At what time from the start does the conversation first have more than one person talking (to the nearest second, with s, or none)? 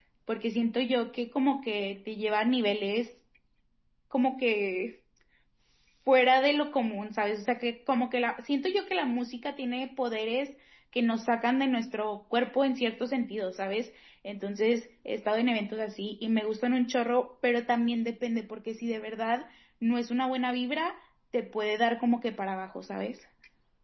none